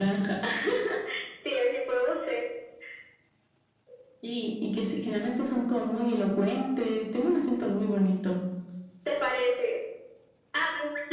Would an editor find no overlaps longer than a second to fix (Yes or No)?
Yes